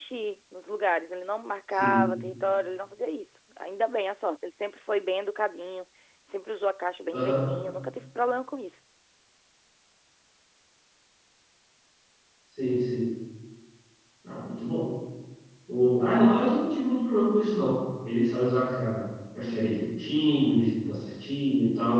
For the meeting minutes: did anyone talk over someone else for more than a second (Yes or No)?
No